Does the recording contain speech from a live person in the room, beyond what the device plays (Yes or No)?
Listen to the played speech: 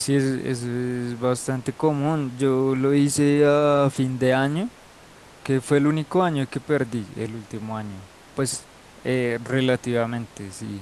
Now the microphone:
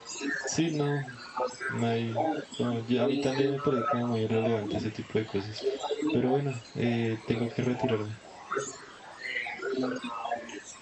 Yes